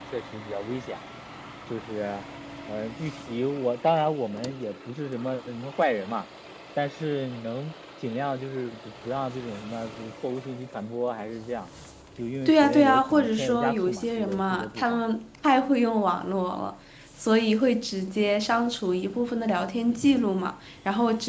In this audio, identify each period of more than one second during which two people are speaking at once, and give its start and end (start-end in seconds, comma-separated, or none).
12.4-15.0